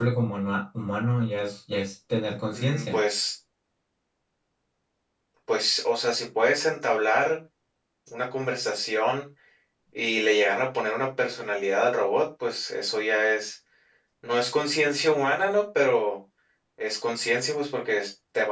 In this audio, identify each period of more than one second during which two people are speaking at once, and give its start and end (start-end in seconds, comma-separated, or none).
none